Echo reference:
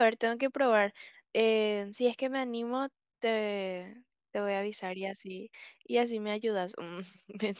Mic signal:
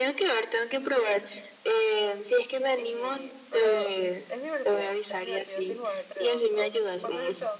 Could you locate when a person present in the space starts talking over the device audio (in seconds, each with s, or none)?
2.7 s